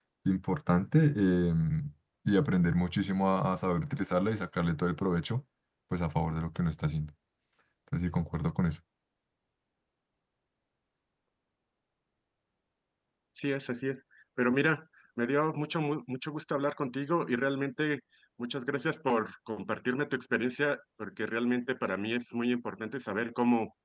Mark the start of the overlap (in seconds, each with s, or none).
none